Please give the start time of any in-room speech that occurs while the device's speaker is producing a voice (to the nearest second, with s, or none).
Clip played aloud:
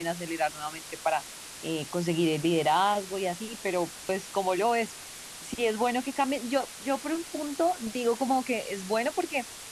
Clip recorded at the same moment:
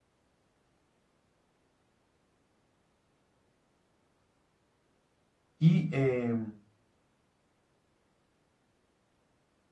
6 s